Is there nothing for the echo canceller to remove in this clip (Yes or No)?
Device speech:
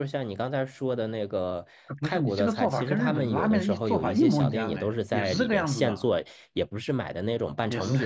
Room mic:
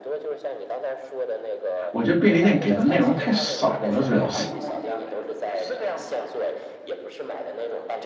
No